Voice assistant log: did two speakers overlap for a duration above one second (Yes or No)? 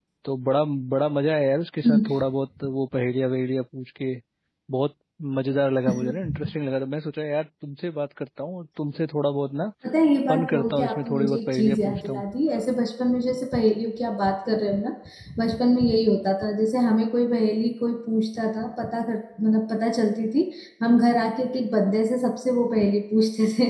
Yes